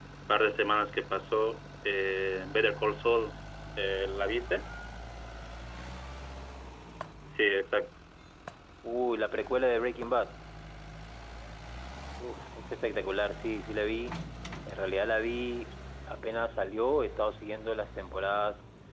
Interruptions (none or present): none